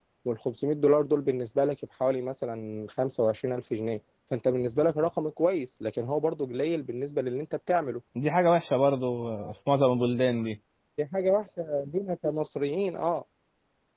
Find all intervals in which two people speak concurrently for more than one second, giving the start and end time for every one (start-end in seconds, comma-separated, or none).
none